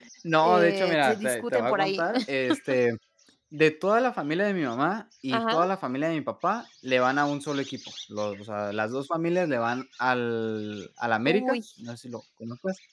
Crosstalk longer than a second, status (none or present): present